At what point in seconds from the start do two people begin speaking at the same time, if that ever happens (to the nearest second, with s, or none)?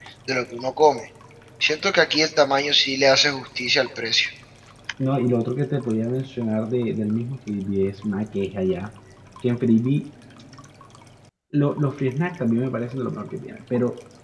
none